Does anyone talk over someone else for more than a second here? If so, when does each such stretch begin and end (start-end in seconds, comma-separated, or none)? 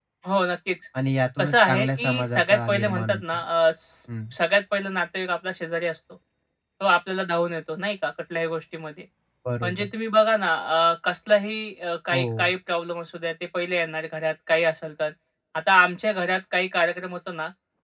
1.4-3.4